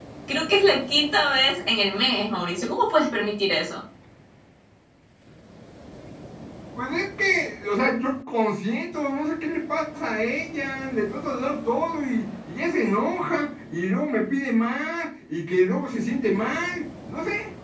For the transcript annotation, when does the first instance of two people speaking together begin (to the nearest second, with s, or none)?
none